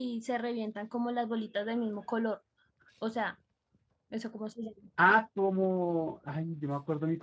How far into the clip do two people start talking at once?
none

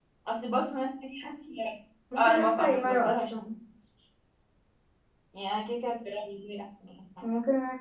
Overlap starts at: 2.2 s

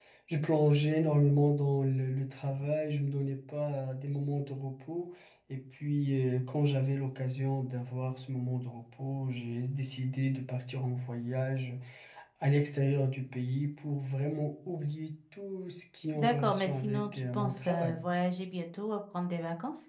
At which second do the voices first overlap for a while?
16.1 s

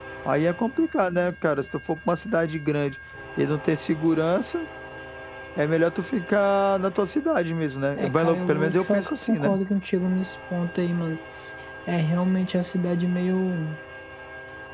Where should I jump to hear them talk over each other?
8.0 s

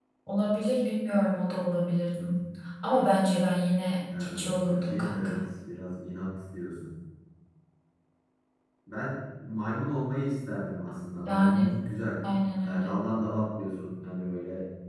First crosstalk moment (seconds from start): 4.2 s

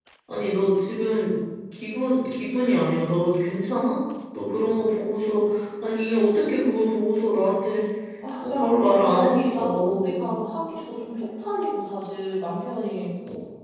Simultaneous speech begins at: 8.4 s

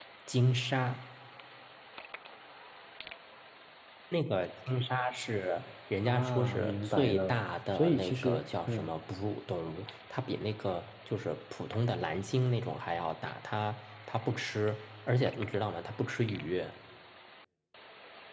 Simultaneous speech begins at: 6.0 s

